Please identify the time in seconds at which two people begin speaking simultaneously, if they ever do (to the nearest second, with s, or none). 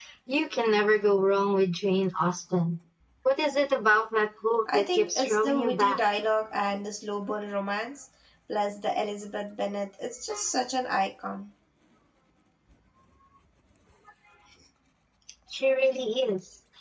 5 s